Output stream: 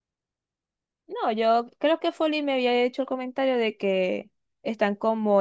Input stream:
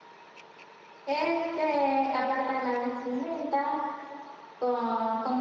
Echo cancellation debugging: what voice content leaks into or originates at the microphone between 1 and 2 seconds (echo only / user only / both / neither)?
user only